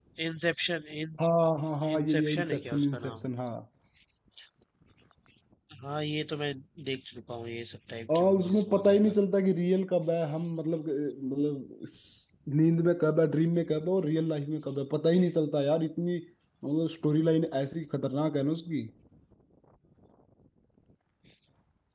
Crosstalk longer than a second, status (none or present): present